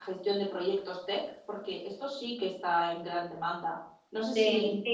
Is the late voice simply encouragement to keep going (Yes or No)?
No